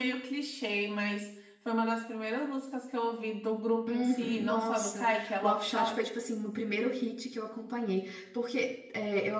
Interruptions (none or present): present